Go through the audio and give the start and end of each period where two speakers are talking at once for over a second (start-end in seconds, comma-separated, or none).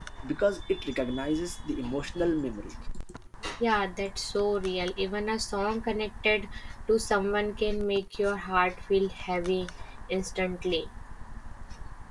none